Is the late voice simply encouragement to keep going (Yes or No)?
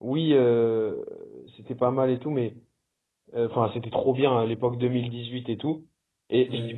Yes